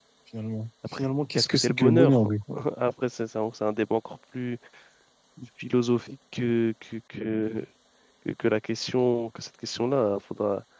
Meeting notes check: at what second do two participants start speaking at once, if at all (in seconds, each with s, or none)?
0.9 s